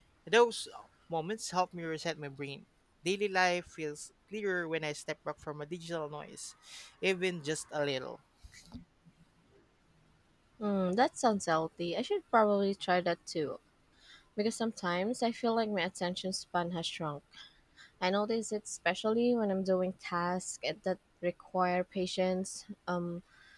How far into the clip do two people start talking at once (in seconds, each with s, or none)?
none